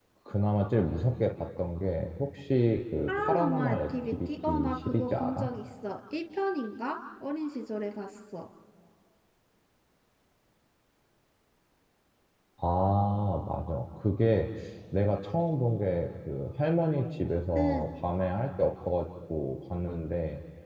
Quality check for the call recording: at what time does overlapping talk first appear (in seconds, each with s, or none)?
3.1 s